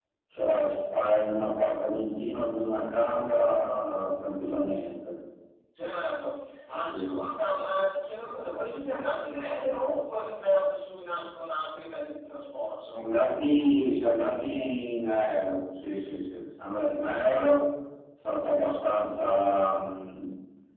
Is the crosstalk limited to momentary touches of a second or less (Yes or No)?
Yes